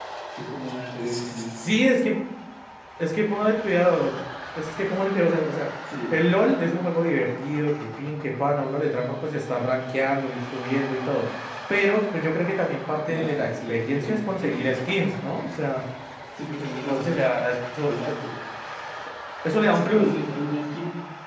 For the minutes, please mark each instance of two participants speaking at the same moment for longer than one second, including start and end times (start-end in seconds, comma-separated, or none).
13.1-14.6